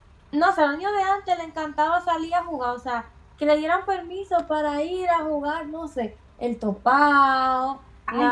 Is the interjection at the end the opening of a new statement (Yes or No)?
Yes